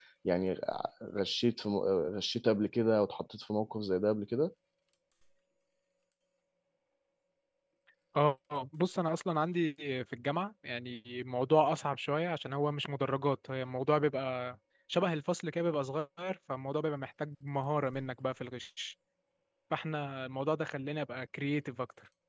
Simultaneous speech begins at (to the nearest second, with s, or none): none